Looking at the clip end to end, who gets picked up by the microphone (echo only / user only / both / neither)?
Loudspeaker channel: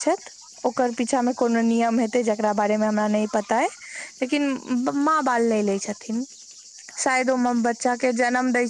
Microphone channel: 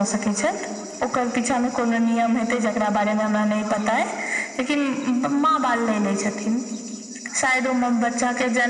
echo only